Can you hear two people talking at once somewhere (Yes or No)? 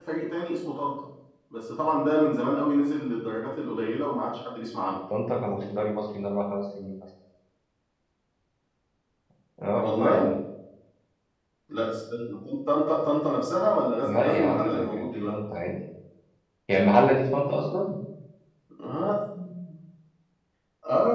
Yes